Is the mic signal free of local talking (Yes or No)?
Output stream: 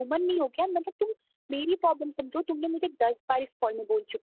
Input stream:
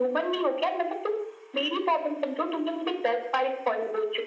Yes